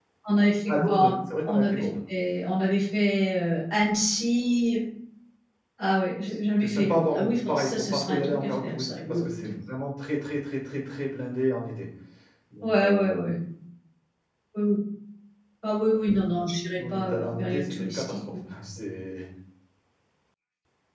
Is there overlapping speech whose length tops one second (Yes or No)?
Yes